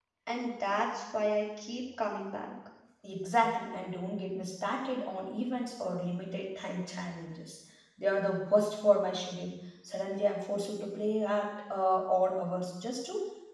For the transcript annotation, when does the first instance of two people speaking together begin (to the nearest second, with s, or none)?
none